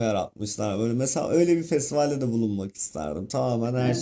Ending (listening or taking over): taking over